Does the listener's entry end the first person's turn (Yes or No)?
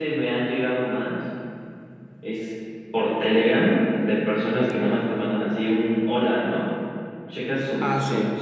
No